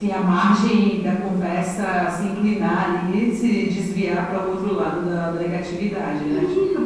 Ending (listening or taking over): taking over